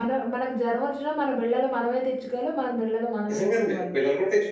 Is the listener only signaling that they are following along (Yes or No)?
No